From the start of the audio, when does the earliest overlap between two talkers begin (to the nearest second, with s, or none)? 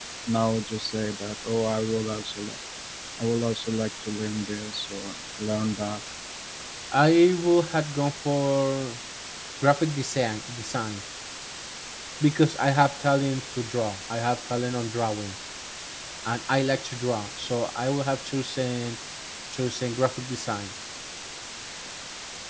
none